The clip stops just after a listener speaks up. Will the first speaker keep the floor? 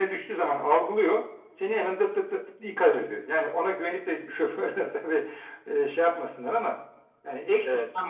Yes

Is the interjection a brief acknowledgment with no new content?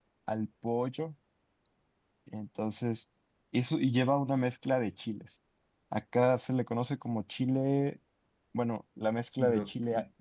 No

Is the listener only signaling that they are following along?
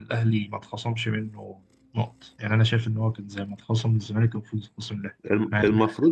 No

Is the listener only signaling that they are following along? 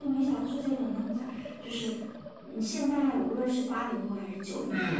No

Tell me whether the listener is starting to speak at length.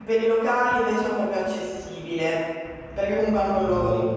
No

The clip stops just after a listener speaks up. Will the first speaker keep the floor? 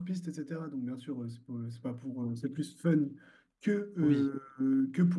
Yes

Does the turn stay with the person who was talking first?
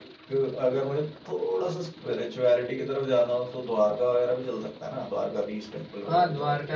No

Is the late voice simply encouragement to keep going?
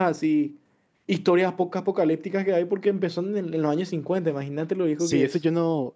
No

